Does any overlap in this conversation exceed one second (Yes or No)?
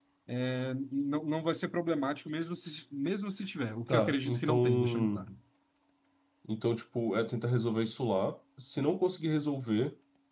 Yes